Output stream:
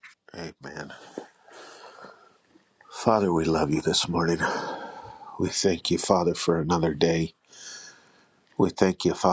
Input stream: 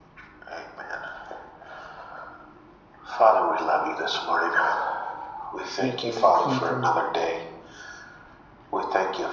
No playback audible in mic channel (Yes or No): No